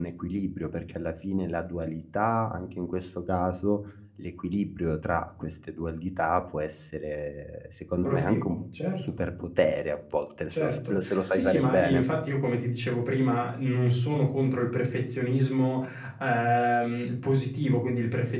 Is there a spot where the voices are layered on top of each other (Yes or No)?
Yes